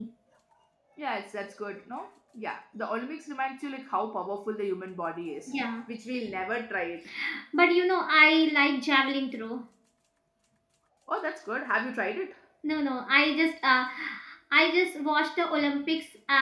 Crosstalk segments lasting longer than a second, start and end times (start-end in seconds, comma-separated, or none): none